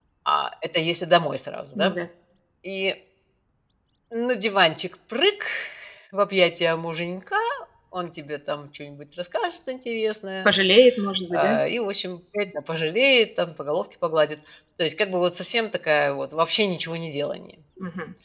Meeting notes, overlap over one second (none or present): none